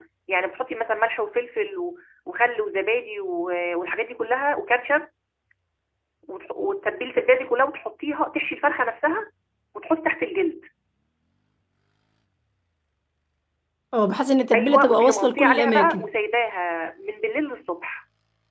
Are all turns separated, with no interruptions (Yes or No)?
No